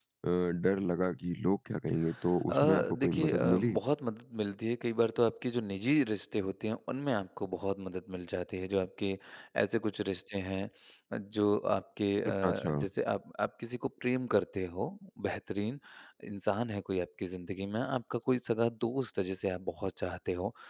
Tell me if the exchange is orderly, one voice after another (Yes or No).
No